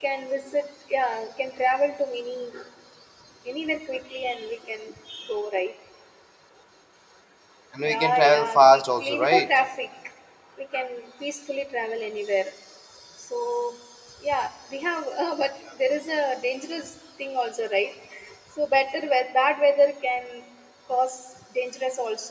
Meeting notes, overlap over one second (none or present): present